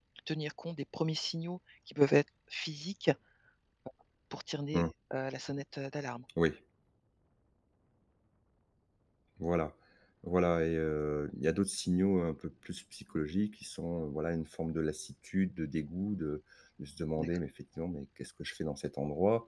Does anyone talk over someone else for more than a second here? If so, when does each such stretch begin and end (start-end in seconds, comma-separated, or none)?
none